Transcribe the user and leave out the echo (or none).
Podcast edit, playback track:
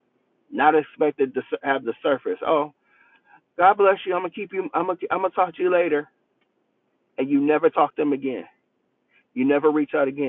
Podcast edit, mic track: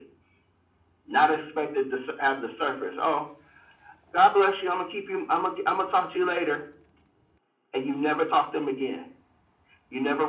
none